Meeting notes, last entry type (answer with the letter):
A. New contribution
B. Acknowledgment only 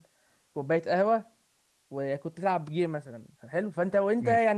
B